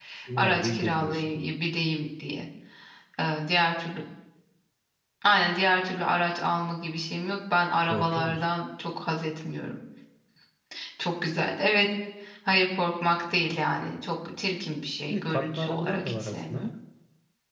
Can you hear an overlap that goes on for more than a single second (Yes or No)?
Yes